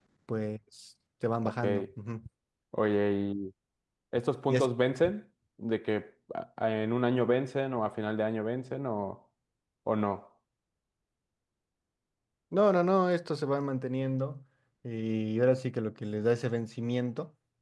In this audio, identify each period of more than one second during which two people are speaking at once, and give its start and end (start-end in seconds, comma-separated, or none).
none